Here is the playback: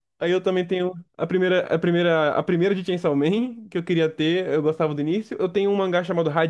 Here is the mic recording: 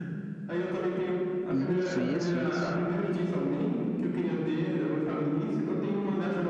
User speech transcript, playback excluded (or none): Isso, isso, isso.